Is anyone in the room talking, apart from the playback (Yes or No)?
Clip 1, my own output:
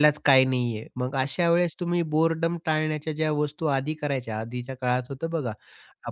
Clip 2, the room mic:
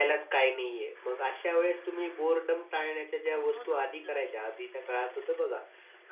Yes